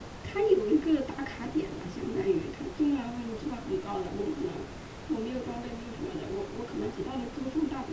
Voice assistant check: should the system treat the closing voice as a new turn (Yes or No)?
No